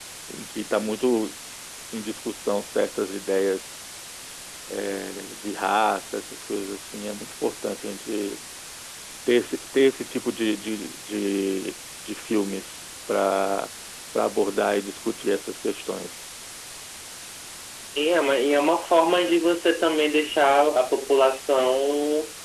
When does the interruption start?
none

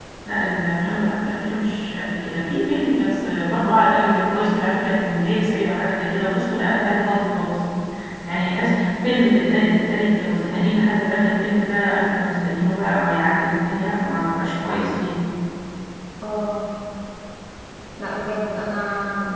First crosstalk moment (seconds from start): none

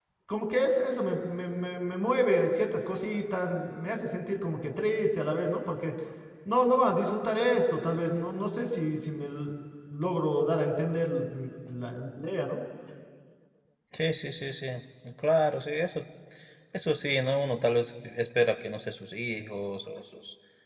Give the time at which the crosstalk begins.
none

